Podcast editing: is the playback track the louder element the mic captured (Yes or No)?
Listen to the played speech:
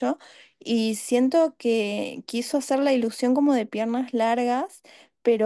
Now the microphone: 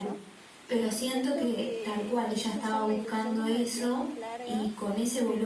No